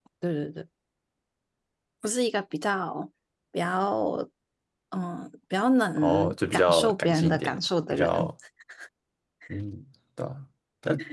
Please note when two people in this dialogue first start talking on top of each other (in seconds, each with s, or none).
6.0 s